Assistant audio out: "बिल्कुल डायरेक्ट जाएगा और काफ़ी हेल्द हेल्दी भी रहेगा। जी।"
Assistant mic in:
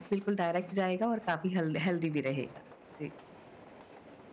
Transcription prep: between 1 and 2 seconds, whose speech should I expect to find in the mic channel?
echo only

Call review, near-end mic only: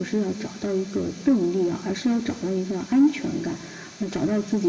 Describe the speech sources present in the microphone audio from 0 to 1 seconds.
echo only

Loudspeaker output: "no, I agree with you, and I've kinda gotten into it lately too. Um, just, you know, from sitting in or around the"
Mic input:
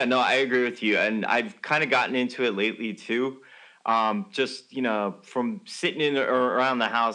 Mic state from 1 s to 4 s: echo only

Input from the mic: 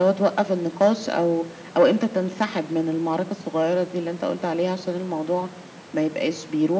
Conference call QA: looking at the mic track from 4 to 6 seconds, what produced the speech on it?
echo only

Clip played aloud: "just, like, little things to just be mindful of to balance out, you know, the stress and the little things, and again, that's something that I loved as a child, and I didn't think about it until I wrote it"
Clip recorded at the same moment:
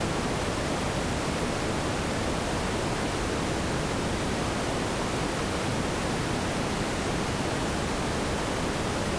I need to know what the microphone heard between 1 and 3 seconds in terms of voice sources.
neither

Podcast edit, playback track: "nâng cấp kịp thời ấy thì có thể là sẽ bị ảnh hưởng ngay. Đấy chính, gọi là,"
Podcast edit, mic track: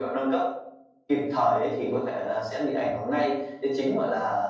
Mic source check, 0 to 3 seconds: echo only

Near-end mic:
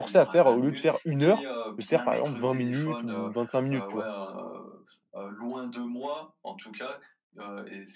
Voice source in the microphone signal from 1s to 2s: both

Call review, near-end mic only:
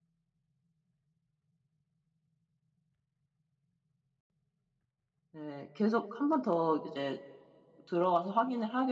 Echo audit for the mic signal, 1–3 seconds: neither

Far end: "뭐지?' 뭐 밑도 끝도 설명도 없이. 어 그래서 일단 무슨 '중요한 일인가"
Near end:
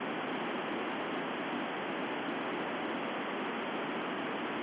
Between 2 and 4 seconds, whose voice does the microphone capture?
neither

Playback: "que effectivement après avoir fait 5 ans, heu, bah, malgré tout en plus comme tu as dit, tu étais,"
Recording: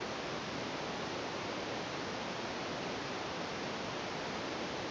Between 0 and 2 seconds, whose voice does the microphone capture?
neither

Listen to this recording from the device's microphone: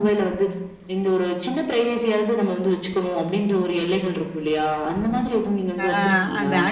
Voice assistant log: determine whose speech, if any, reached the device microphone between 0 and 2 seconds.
echo only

